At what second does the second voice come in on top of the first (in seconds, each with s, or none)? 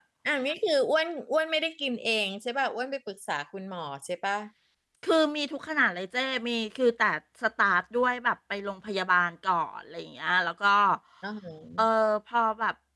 none